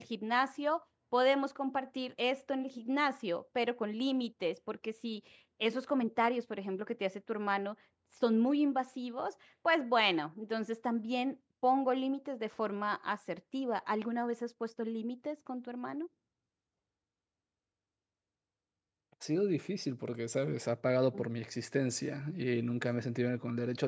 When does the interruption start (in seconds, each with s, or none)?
none